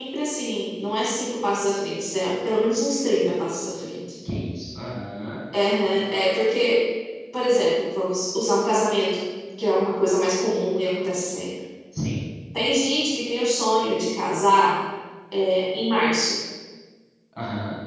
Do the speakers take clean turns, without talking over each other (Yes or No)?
Yes